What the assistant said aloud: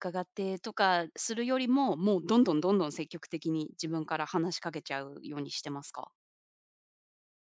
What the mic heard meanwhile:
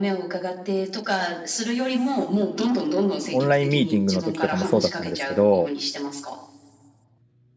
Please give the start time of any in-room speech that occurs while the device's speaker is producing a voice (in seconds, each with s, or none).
3.3 s